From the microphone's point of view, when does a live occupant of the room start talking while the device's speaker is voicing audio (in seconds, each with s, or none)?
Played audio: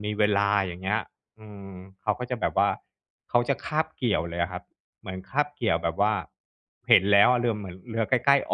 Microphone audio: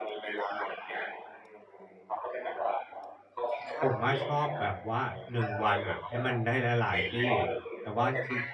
3.8 s